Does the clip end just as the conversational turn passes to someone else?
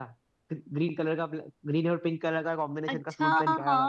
Yes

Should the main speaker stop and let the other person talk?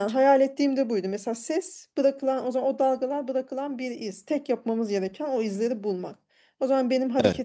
No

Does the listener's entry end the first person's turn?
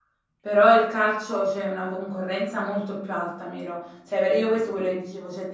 No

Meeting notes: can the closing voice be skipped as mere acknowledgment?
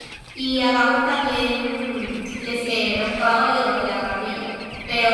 Yes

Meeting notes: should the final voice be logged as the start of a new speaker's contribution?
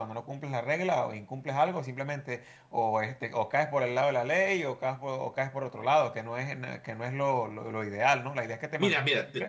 Yes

